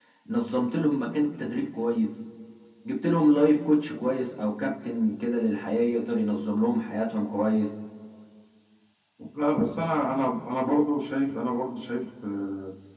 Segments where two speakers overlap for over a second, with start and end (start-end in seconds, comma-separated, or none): none